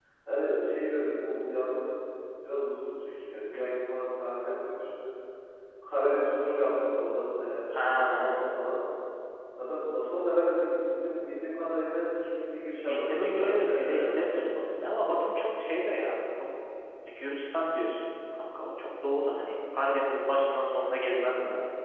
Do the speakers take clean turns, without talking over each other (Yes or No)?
No